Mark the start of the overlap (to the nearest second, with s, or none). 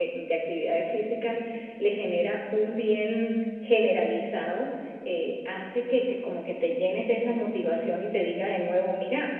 none